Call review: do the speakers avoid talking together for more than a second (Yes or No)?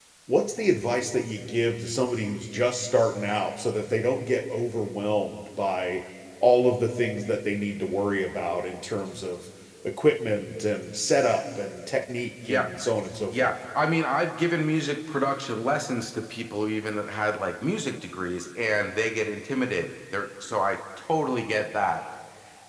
Yes